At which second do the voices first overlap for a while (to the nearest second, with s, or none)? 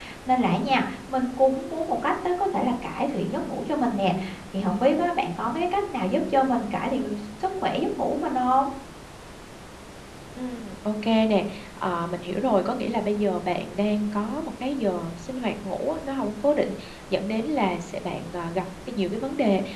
none